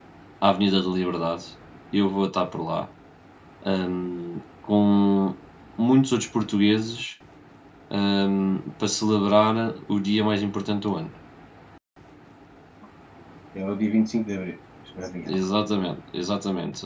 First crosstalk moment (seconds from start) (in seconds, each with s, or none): none